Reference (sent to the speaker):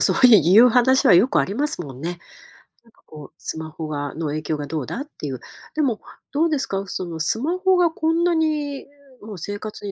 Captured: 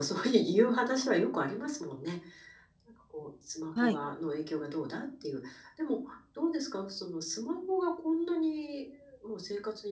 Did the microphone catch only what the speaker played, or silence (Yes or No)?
No